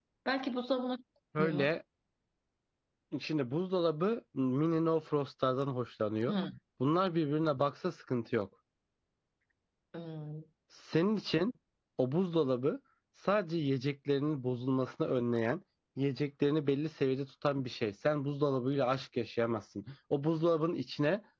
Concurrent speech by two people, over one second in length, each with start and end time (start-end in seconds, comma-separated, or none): none